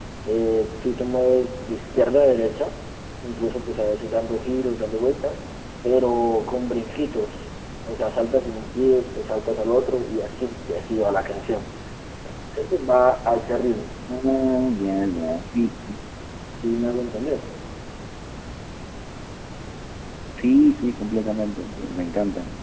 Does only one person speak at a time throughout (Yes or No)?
Yes